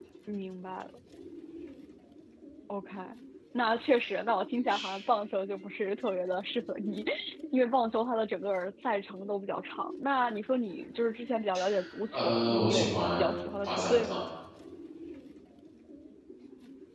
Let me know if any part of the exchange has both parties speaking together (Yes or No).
Yes